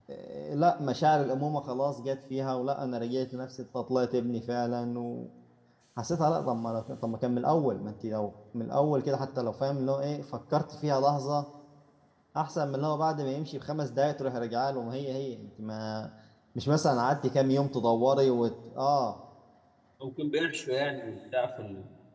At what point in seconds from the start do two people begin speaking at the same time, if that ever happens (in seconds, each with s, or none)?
none